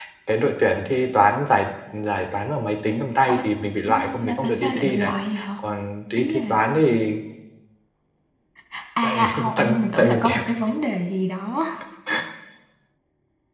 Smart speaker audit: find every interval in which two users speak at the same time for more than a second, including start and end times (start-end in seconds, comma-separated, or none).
3.9-5.1, 9.0-10.4